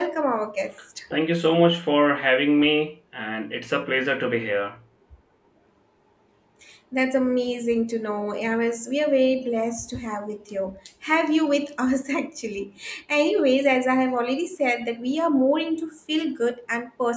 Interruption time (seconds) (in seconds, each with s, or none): none